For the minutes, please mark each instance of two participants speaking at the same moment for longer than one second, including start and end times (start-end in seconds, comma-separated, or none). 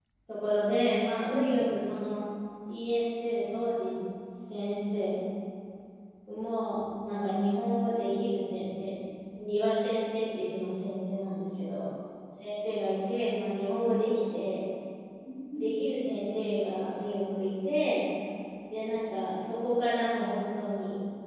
none